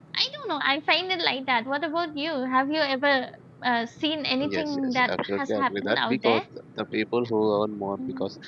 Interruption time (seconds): 4.5 s

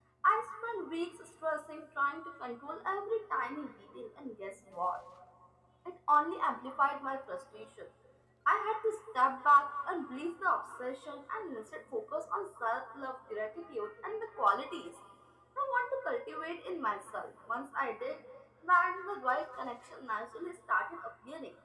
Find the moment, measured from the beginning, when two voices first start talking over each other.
none

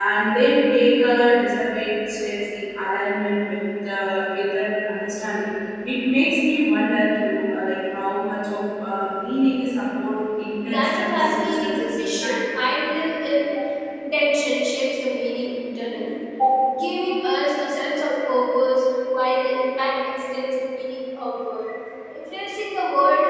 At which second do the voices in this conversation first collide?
10.6 s

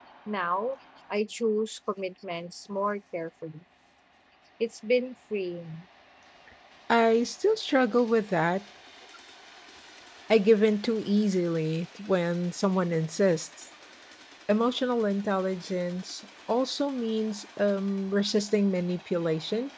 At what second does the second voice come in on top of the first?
none

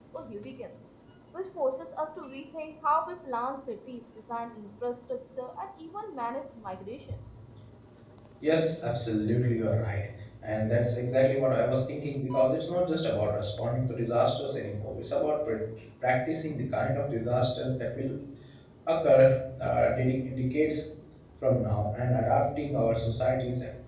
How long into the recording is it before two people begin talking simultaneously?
none

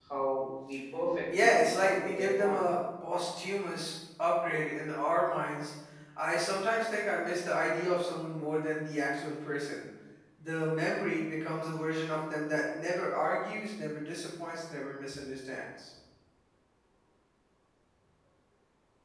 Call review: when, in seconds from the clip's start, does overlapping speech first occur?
1.3 s

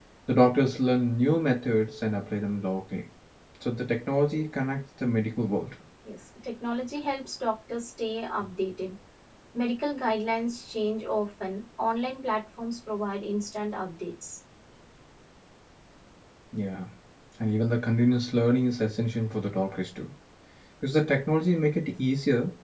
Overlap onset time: none

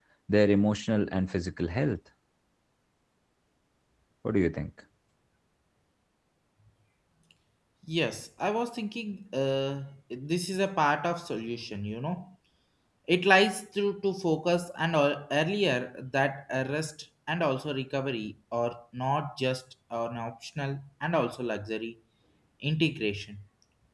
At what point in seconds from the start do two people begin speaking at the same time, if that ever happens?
none

